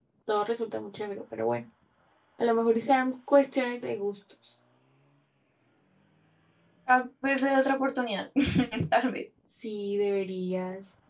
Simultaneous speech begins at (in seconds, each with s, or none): none